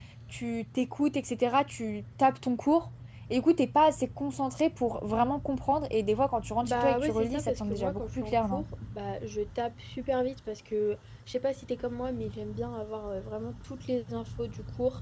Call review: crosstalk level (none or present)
present